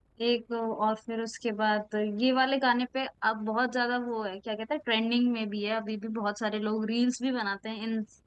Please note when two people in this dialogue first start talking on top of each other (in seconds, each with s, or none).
none